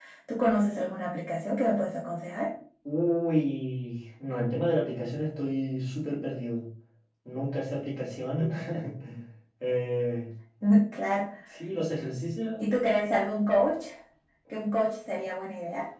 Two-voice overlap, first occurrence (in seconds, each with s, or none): none